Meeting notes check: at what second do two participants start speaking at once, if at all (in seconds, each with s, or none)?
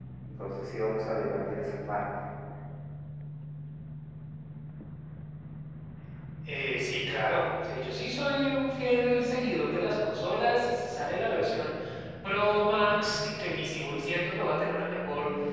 none